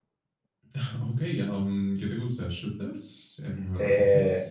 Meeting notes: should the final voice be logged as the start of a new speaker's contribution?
Yes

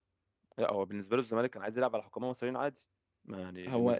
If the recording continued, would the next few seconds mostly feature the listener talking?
Yes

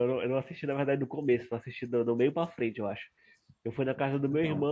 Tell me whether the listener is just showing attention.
Yes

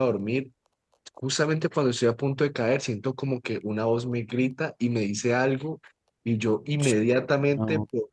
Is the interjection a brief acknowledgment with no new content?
Yes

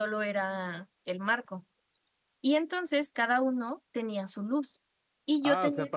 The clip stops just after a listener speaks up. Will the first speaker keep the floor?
No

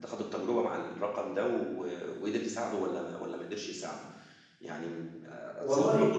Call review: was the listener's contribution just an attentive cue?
Yes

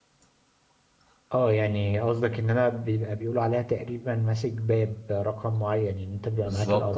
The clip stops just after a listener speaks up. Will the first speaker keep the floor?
Yes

